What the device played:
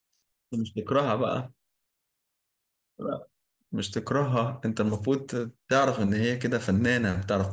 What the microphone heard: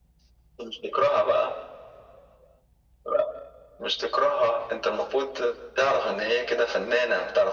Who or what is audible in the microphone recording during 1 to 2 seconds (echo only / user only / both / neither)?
echo only